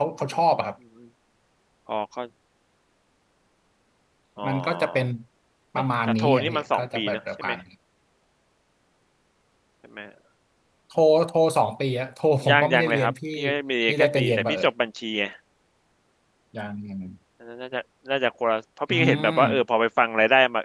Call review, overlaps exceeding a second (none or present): present